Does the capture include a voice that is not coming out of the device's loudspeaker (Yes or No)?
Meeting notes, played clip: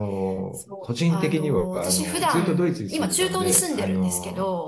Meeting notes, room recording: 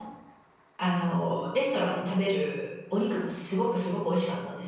Yes